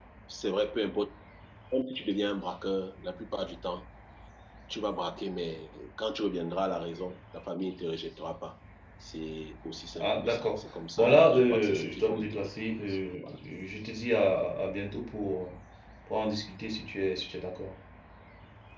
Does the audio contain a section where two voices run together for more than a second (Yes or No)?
Yes